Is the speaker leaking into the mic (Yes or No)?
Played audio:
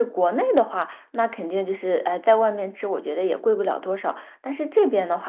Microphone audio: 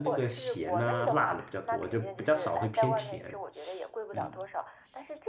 Yes